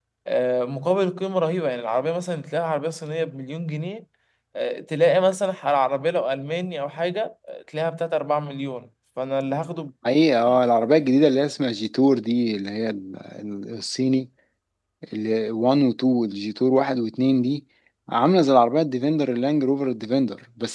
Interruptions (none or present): none